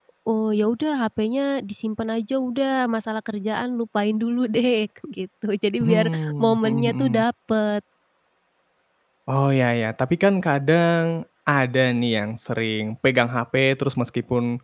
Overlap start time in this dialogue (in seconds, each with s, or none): 5.8 s